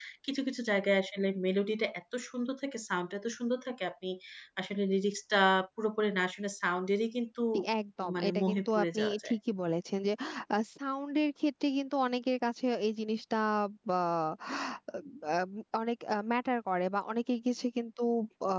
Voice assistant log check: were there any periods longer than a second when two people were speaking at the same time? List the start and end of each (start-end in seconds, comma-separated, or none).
8.0-9.3